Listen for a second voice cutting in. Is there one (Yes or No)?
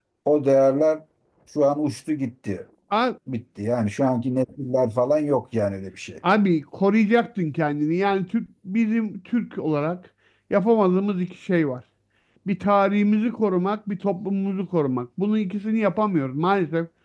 No